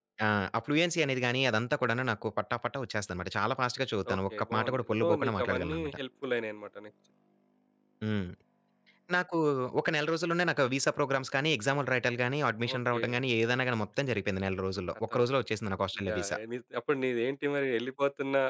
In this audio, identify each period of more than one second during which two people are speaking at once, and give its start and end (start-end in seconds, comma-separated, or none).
4.1-6.0